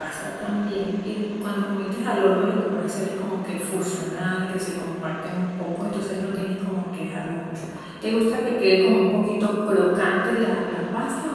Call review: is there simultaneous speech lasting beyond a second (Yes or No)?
No